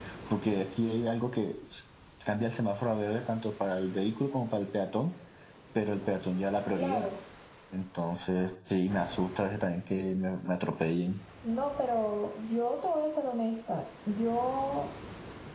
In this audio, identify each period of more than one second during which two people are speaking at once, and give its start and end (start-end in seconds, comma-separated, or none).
none